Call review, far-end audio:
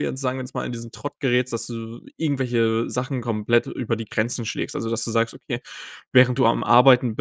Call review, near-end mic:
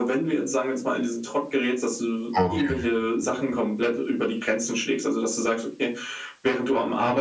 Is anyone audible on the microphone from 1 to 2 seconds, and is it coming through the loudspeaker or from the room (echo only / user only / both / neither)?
echo only